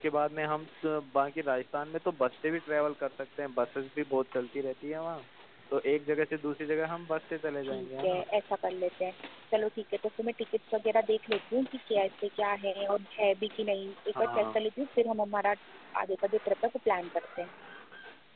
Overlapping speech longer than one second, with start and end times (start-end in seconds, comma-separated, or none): none